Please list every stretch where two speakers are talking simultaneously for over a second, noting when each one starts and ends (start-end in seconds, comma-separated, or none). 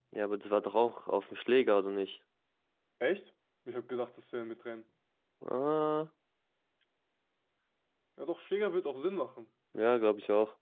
none